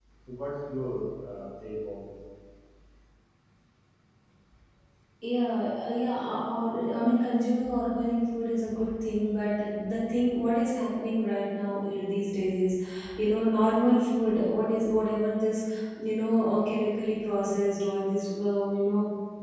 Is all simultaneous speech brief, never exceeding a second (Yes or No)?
Yes